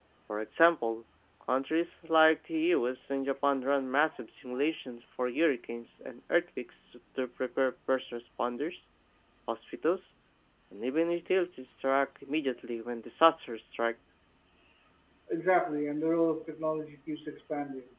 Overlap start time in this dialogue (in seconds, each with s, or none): none